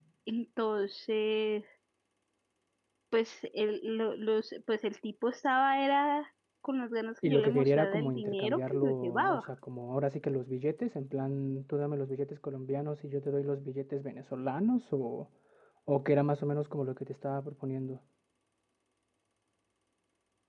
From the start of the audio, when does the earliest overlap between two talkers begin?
7.2 s

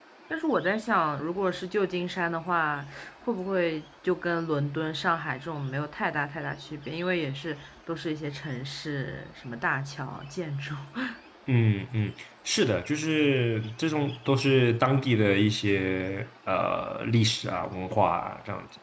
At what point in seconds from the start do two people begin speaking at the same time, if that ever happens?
none

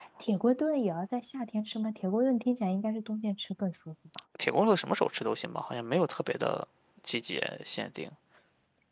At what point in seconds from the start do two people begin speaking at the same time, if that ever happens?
none

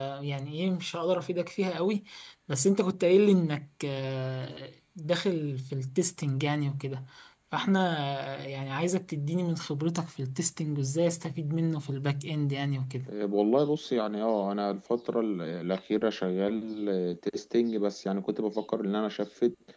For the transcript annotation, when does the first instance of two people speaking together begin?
none

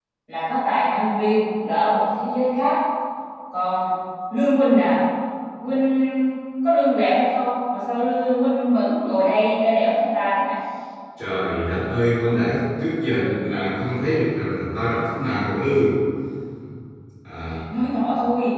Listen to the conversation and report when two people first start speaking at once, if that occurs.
none

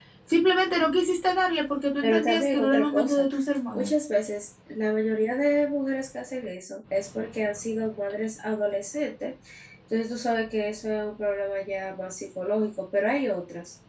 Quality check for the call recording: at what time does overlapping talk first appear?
2.0 s

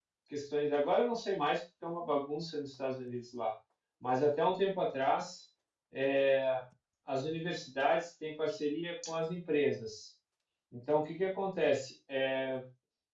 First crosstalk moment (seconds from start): none

